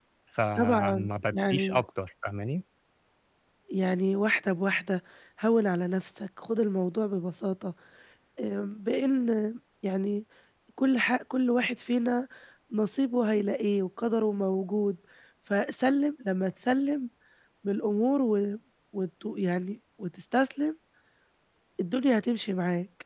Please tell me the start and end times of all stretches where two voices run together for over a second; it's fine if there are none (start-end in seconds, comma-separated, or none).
0.6-1.8